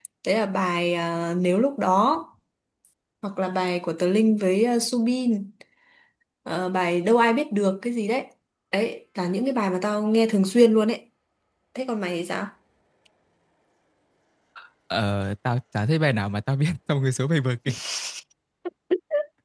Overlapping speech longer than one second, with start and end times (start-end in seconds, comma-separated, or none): none